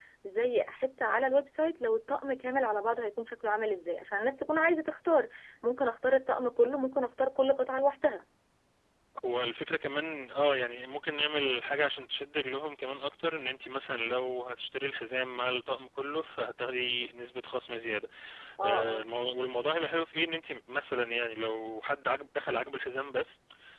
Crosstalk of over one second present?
No

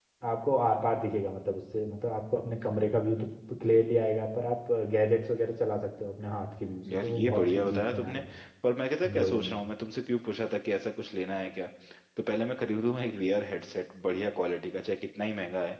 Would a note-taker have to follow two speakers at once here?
Yes, from 6.9 s

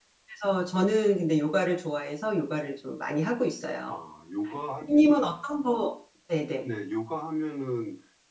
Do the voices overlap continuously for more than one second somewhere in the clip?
No

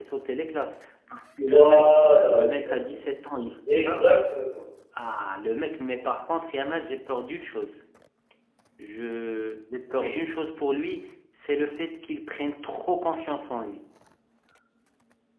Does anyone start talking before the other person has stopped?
Yes, from 1.5 s

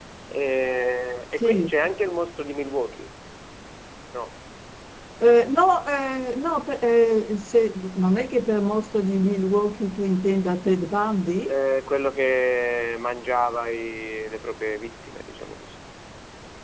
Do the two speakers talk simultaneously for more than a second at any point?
No

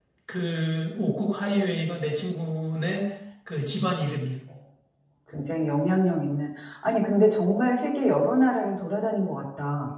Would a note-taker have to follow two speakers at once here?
No

